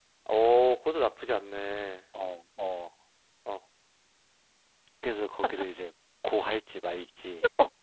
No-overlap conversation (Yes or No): Yes